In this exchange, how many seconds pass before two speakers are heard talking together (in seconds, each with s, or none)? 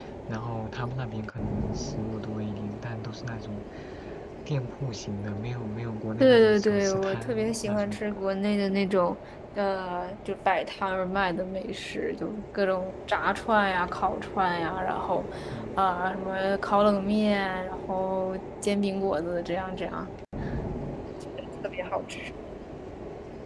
6.2 s